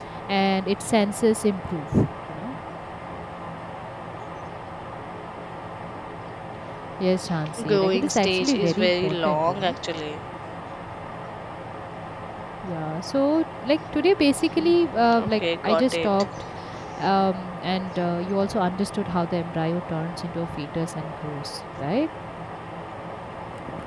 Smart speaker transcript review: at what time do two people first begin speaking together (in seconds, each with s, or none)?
7.6 s